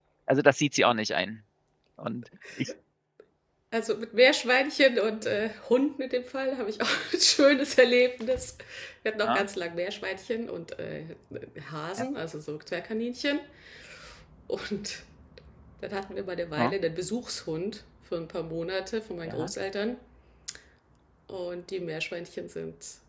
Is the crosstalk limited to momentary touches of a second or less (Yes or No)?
Yes